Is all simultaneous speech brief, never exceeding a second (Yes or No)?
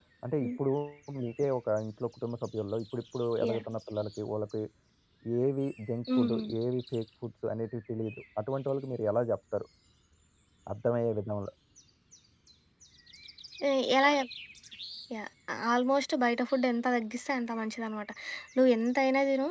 Yes